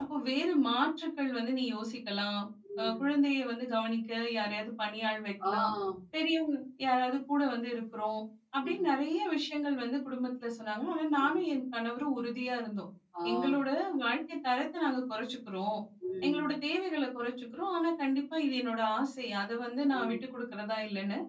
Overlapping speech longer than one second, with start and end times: none

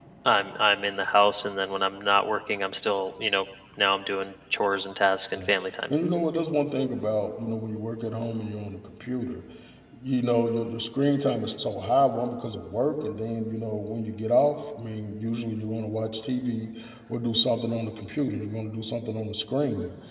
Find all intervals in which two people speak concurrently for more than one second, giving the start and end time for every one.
none

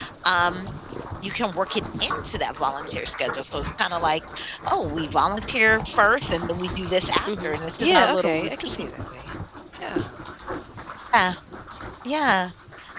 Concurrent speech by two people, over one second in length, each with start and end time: 7.3-8.9

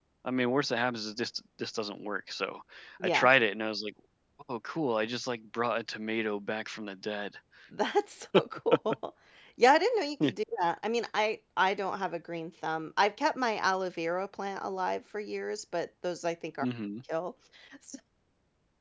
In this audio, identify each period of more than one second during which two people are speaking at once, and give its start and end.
none

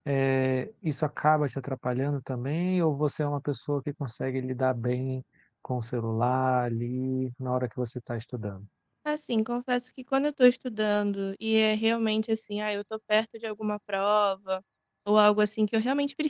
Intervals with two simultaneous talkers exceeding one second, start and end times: none

